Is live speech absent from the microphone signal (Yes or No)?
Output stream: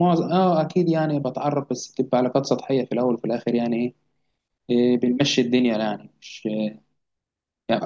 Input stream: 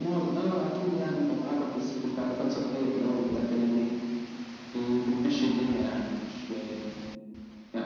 Yes